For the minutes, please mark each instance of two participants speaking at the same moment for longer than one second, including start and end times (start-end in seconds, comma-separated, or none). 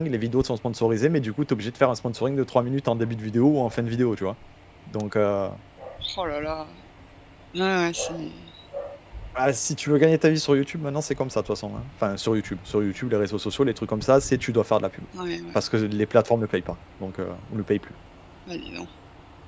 none